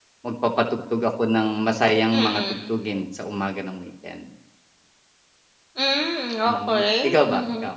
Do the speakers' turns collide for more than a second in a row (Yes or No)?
Yes